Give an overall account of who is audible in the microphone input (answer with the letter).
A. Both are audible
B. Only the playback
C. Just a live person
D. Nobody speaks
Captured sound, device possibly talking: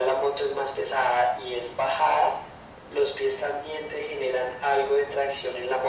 B